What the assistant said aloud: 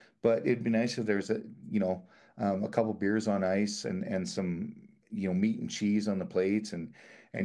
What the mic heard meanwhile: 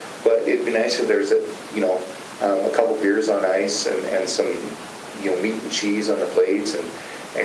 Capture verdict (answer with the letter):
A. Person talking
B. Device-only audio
B